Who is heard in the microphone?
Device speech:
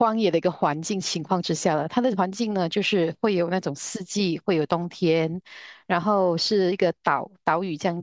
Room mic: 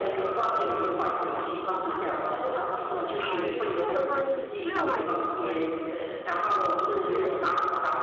both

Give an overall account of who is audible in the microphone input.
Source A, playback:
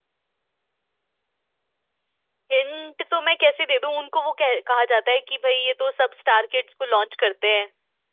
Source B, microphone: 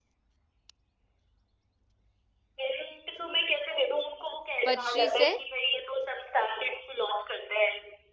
both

